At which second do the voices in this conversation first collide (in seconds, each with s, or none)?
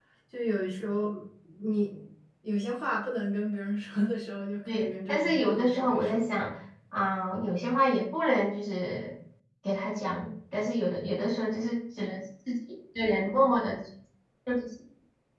4.7 s